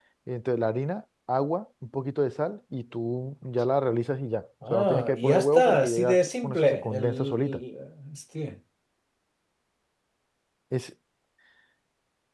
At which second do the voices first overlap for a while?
4.6 s

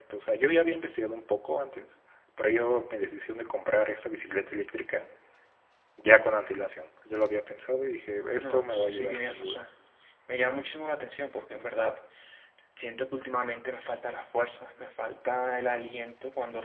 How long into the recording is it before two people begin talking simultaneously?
8.4 s

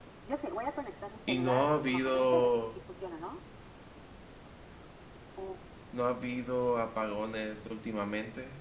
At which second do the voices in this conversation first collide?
1.3 s

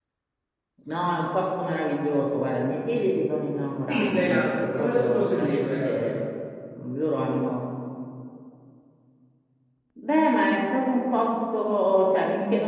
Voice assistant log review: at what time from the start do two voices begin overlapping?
3.8 s

